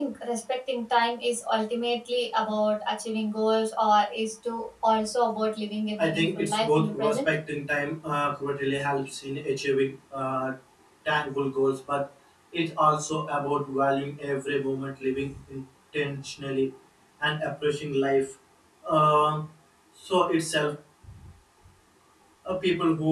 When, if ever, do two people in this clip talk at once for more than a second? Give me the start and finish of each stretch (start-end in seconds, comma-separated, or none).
6.0-7.3